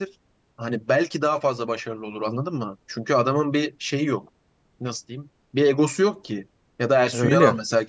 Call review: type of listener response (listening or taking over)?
listening